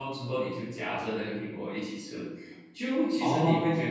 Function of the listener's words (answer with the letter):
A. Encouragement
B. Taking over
A